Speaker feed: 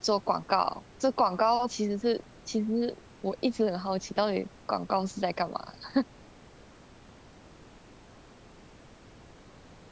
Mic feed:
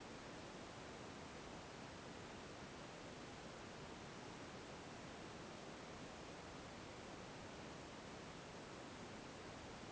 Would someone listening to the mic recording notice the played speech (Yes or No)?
No